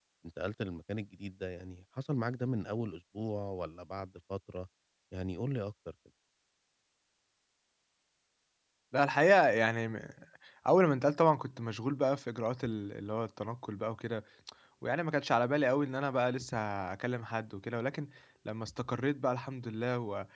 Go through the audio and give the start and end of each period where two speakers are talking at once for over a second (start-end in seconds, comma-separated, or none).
none